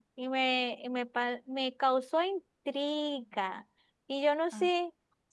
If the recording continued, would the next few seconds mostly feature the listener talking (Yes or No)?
No